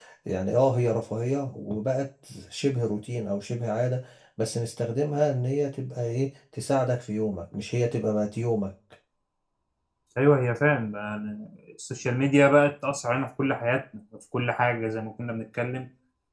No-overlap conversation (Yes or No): Yes